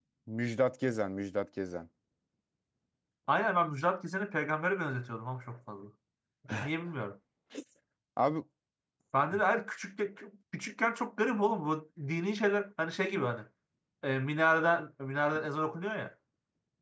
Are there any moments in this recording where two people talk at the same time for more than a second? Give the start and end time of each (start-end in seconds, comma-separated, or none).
none